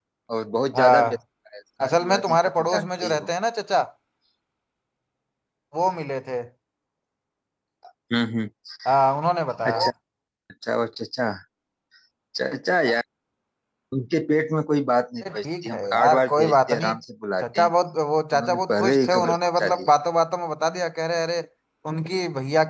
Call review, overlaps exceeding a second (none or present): present